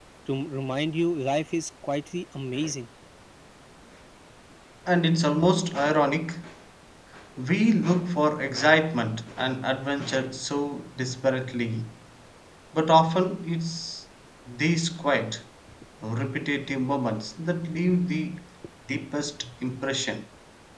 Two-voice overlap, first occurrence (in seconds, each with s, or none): none